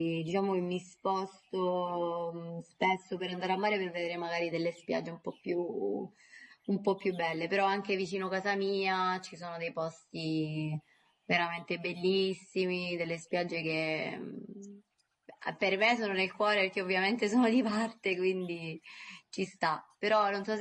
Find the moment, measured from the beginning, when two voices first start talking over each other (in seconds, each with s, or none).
none